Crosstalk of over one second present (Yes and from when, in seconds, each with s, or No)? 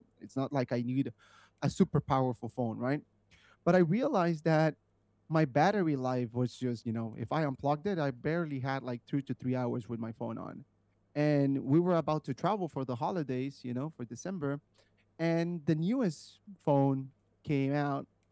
No